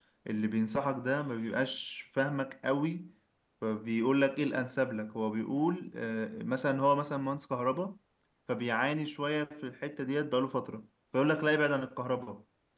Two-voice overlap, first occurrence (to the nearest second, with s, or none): none